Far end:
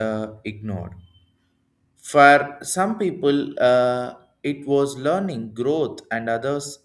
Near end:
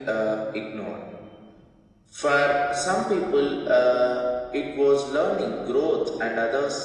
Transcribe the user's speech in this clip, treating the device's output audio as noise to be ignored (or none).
none